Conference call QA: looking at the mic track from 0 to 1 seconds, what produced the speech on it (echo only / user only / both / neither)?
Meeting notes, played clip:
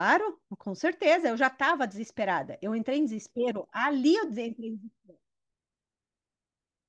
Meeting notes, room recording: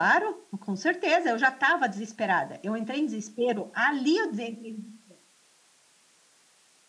echo only